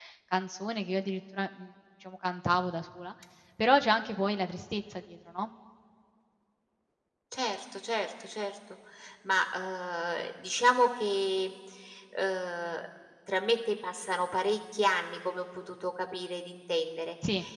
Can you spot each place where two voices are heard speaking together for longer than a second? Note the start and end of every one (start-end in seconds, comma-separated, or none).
none